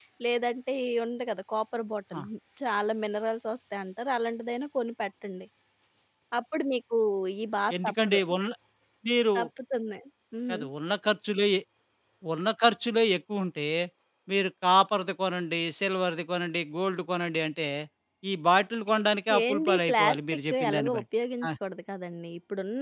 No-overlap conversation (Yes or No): No